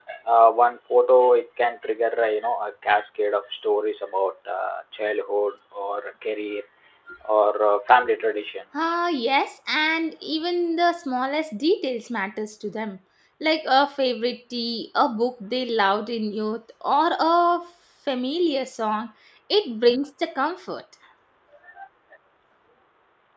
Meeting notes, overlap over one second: none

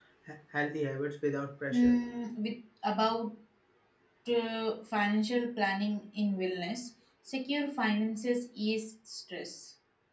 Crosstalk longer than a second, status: none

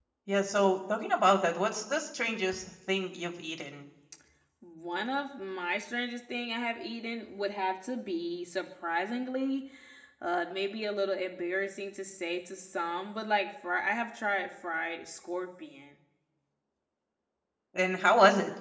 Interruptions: none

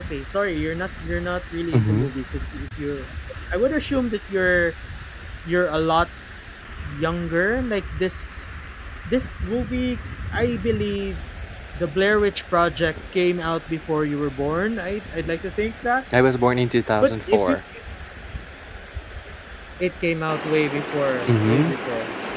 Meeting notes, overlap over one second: none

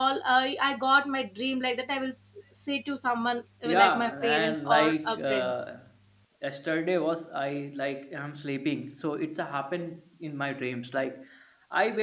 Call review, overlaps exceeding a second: present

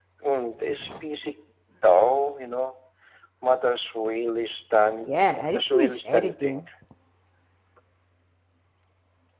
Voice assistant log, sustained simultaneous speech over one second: present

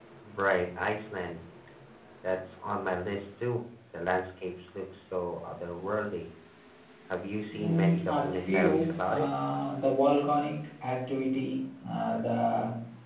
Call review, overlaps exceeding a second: present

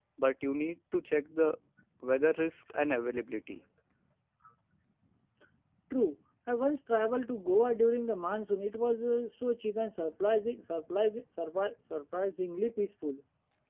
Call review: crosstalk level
none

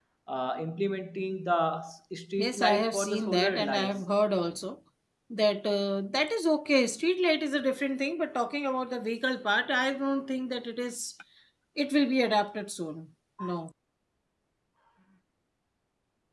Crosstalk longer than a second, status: present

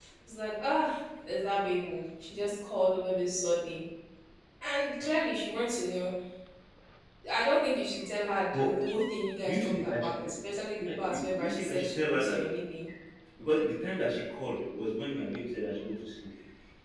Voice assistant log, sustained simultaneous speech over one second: present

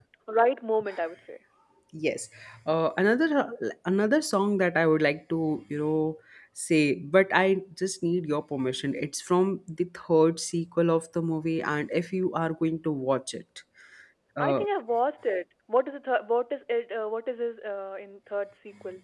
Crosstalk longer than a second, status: none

